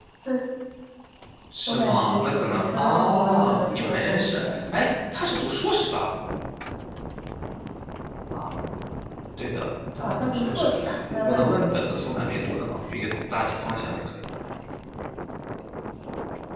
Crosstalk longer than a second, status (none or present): present